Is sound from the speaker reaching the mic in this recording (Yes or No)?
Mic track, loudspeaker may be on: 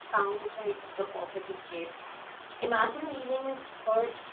No